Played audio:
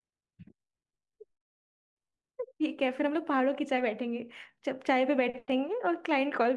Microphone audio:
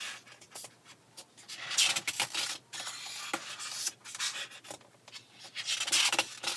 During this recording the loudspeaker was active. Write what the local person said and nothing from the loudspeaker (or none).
none